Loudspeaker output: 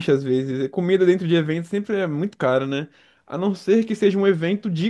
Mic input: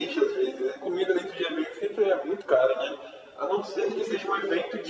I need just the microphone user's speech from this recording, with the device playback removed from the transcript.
none

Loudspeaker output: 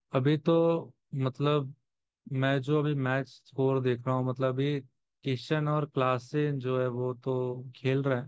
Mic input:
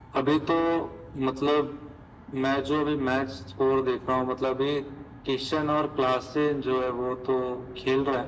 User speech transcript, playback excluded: none

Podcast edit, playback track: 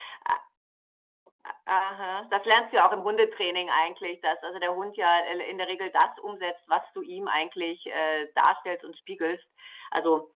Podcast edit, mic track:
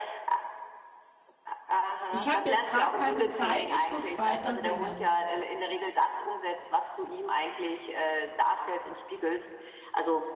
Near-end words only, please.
„Ich habe jetzt gerade keine Zeit, ich muss weiter singen.“

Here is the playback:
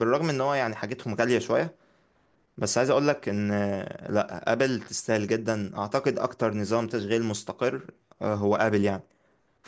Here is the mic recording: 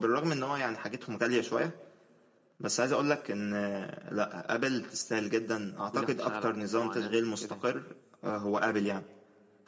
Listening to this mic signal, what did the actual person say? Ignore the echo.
وكل واحد يشتغل على حته معينه كده

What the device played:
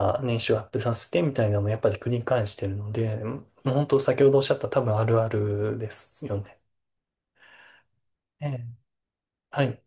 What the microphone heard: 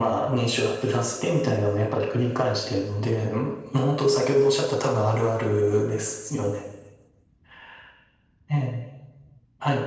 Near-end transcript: none

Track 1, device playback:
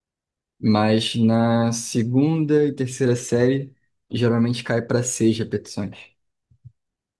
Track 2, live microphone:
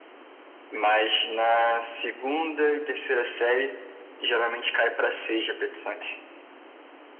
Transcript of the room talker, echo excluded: none

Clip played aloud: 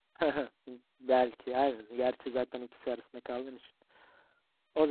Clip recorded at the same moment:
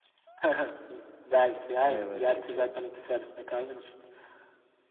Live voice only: Mayaları seçiyorum.

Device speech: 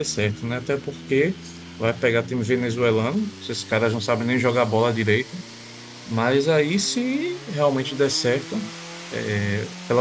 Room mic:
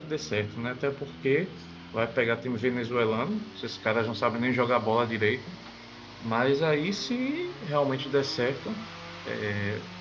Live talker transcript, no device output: none

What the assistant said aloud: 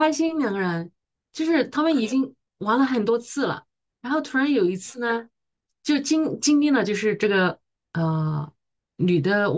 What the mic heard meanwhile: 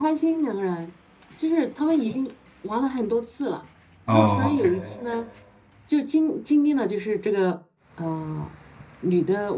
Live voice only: 哦

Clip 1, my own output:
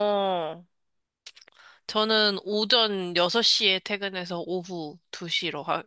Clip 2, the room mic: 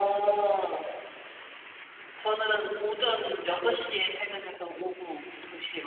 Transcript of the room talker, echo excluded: none

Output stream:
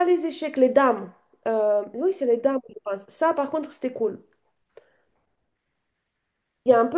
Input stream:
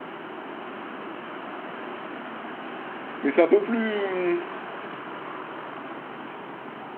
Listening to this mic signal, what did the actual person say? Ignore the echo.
Mais c'est un peu plus... hum,

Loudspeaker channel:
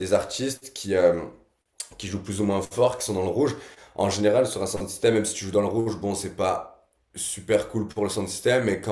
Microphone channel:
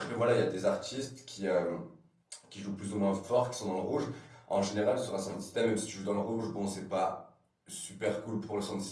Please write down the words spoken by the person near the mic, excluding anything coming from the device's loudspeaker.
none

